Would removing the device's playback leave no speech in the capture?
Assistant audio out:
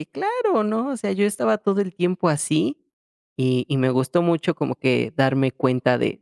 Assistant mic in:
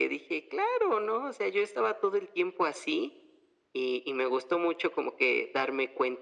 Yes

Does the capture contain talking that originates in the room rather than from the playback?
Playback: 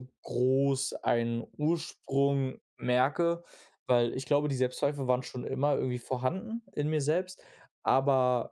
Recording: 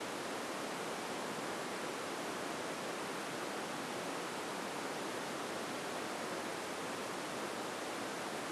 No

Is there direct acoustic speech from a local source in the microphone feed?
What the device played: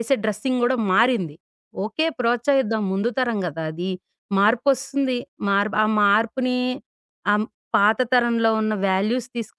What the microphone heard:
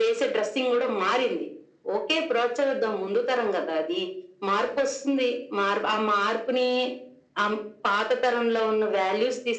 No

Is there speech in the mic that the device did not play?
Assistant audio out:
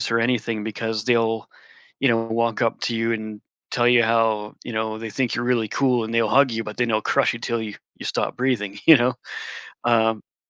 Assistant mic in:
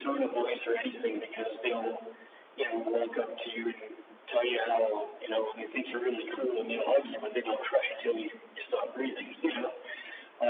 No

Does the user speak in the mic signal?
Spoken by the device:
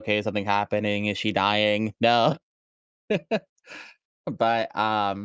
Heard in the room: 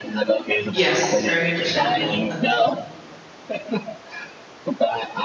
Yes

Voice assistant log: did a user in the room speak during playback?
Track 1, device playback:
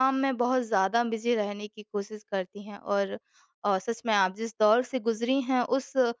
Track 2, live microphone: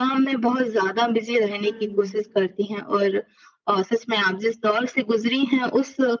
Yes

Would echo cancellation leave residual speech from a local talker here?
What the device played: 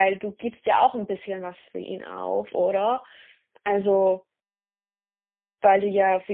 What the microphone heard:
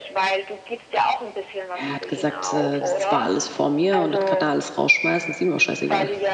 Yes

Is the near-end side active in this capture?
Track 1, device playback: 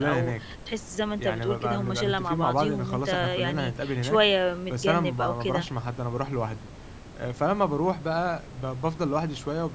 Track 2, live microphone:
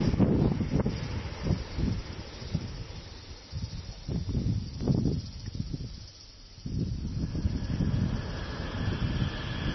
No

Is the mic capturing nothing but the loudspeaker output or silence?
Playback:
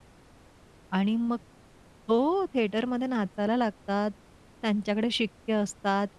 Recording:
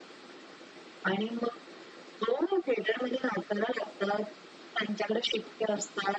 Yes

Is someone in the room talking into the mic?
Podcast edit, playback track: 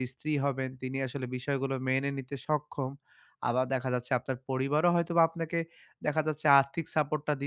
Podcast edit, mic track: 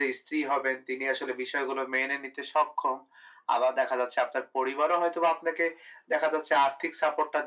No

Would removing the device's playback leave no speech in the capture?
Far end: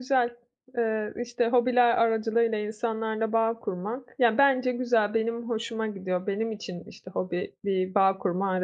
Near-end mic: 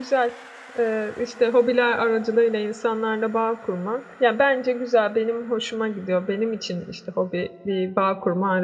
Yes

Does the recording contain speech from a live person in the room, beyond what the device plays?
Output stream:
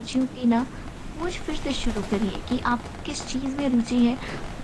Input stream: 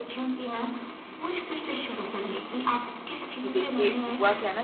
Yes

